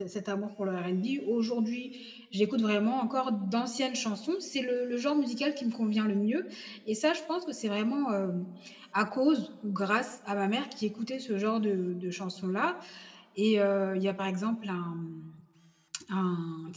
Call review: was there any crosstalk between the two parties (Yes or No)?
No